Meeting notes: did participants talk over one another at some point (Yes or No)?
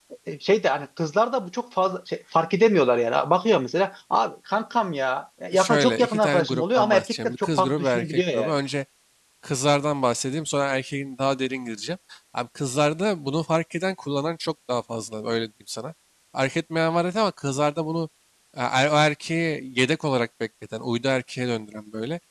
Yes